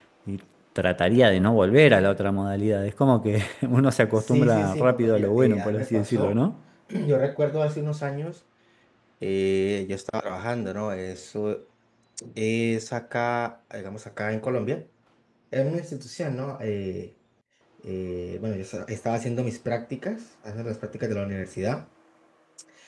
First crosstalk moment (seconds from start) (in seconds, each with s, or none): 4.2 s